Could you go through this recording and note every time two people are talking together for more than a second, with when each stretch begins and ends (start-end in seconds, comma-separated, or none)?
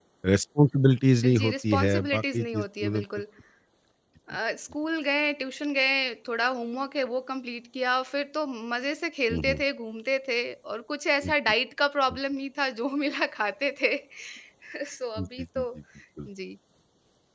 1.4-3.0